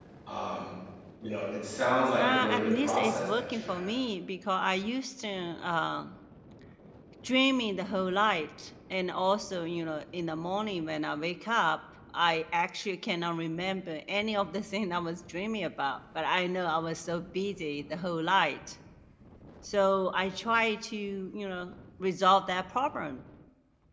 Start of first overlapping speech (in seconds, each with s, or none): 2.2 s